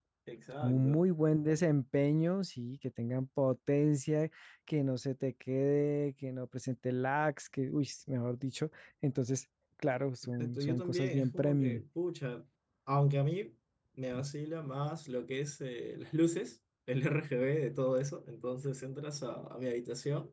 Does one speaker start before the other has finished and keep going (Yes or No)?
Yes